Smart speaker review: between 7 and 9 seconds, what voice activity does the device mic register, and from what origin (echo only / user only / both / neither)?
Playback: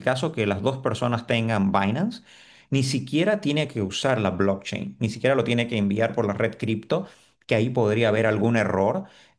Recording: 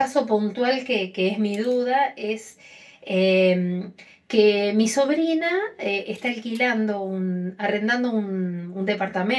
user only